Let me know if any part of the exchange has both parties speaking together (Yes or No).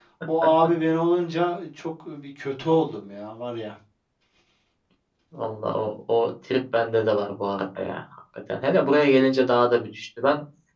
No